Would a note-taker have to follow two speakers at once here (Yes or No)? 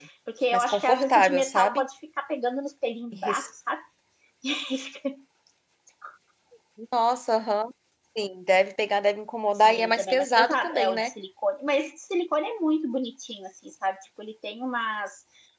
Yes